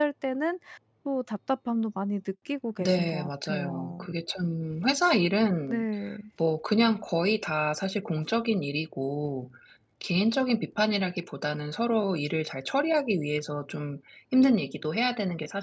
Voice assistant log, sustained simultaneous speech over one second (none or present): present